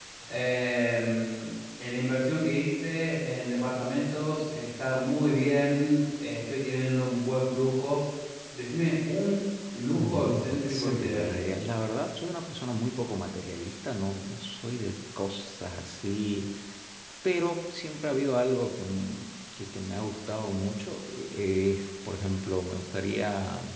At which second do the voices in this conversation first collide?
10.0 s

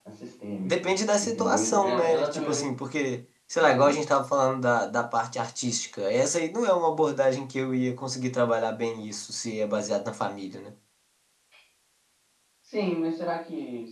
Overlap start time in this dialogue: 0.6 s

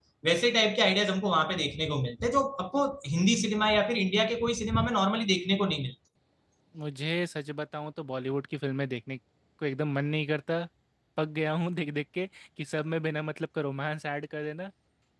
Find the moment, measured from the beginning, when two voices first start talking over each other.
none

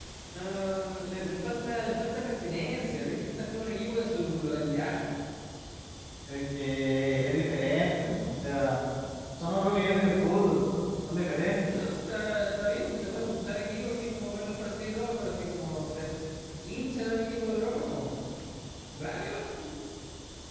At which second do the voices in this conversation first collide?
none

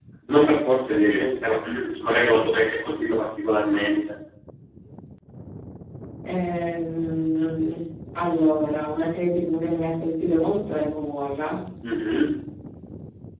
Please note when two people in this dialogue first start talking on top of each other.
none

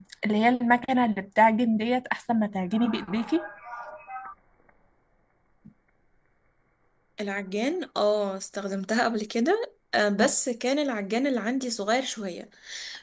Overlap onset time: none

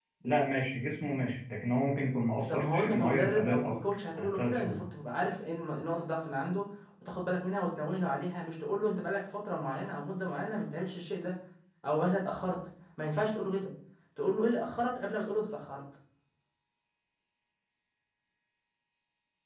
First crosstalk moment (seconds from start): 2.5 s

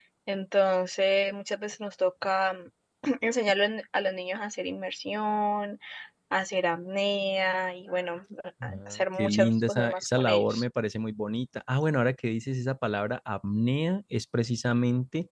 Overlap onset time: 8.6 s

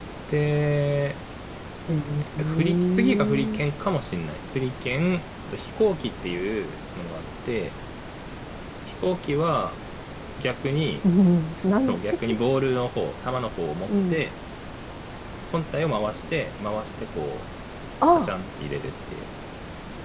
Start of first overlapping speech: 2.4 s

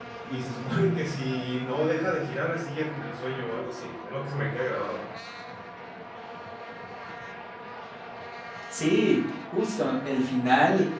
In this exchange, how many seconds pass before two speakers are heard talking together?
none

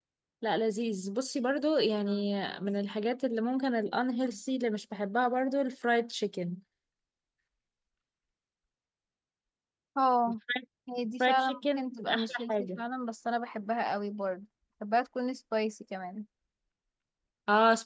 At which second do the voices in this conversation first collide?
11.2 s

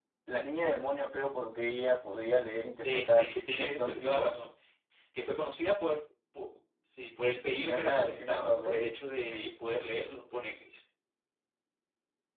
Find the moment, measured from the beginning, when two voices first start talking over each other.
2.8 s

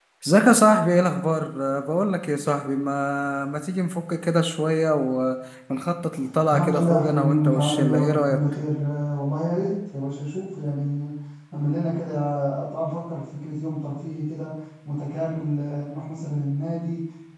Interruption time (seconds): 6.5 s

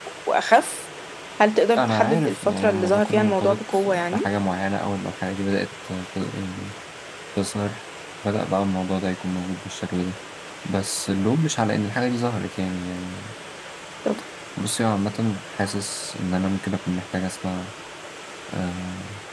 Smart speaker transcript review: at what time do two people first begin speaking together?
1.8 s

